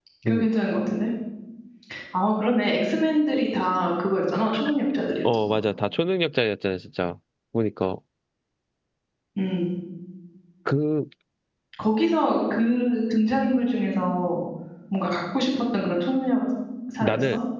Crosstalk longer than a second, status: none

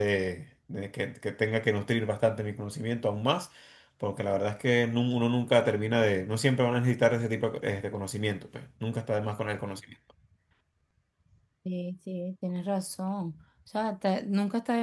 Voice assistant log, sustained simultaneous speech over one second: none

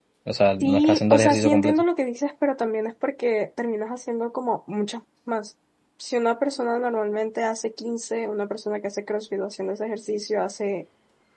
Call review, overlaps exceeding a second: present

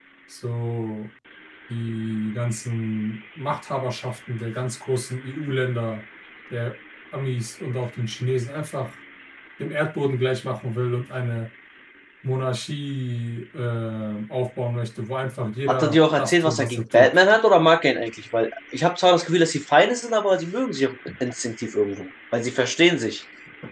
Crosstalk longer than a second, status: present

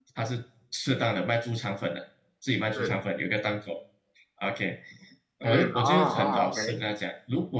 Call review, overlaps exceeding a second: present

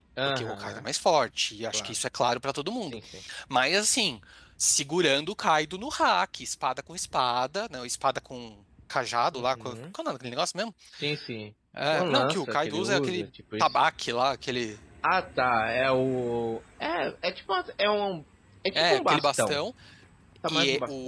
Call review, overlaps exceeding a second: present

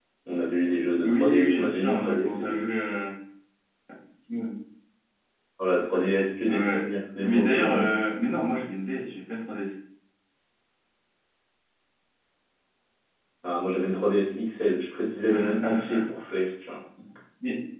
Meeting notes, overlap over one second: present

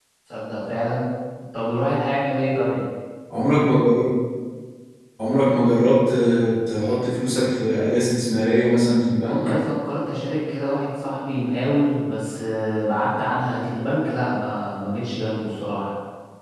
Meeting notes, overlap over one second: none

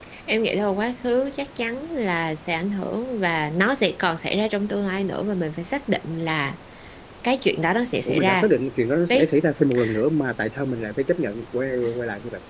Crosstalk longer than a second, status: none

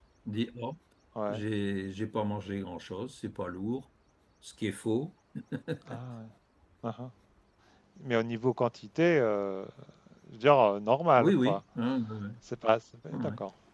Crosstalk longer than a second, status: none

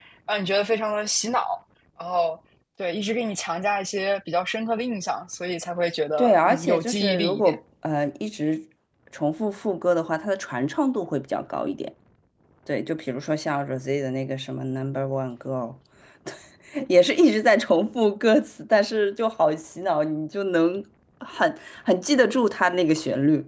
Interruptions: present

